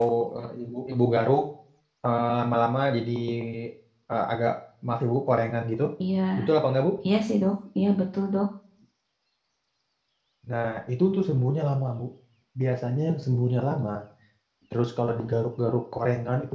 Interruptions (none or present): none